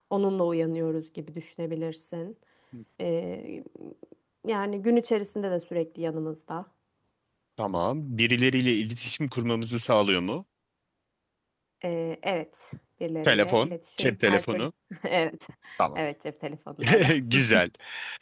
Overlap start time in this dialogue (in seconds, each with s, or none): 13.3 s